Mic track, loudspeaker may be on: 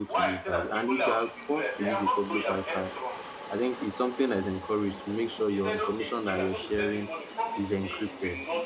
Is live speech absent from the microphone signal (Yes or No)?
No